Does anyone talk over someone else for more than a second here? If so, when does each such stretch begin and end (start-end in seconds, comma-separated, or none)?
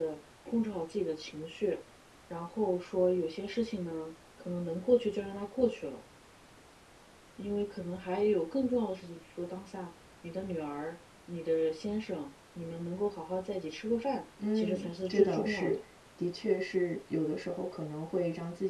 14.5-15.8